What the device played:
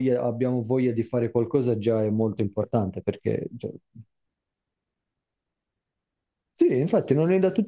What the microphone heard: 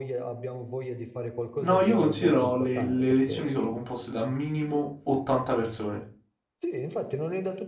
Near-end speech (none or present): present